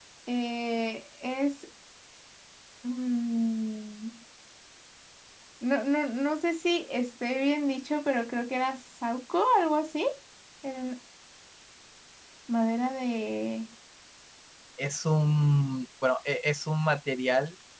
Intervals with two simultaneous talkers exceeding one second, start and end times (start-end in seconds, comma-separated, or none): none